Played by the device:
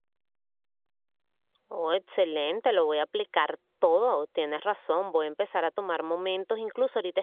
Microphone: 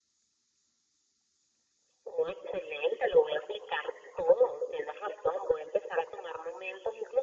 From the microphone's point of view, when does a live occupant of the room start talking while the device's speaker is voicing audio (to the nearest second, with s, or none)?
none